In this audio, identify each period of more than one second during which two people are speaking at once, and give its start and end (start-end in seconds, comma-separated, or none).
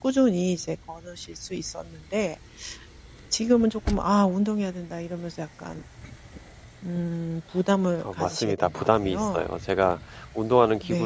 8.0-9.5